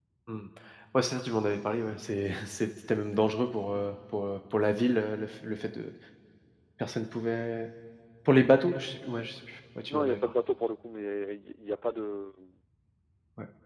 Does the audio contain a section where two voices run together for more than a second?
No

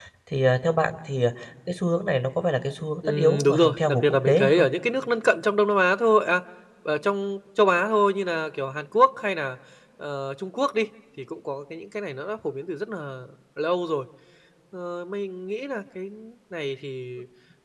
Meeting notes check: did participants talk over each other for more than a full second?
Yes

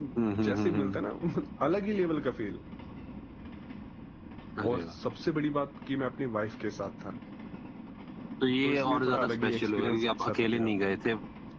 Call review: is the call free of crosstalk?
No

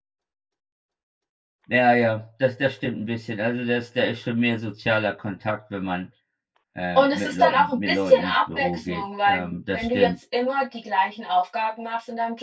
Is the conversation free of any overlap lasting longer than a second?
No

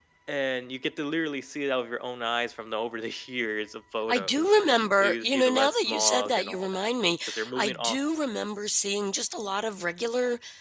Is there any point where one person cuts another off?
Yes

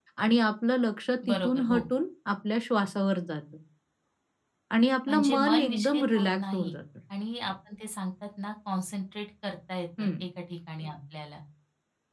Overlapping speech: Yes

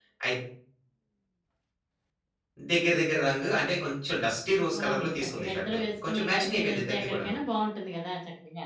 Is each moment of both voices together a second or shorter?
No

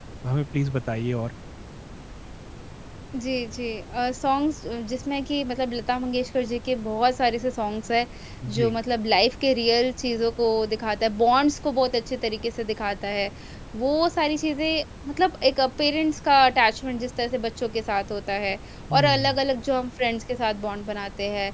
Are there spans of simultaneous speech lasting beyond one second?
No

